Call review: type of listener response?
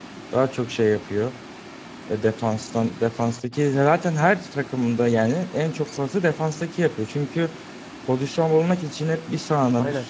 listening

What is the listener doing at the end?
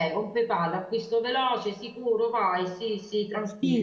taking over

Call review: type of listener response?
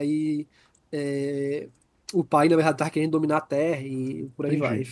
taking over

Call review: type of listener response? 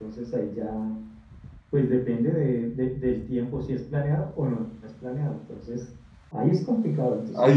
taking over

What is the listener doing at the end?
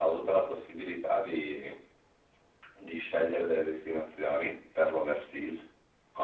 listening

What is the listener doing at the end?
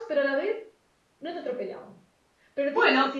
listening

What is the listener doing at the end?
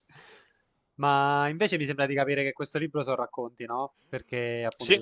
listening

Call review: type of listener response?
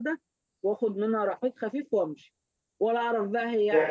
taking over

